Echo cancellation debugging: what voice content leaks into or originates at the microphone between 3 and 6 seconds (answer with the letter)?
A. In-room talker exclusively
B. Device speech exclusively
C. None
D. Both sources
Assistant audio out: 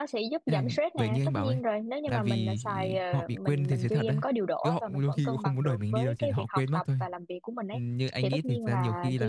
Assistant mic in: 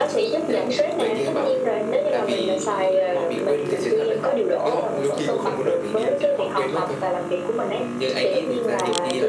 B